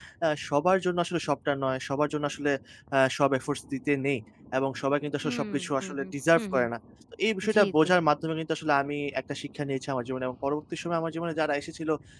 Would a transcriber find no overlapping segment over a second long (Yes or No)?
No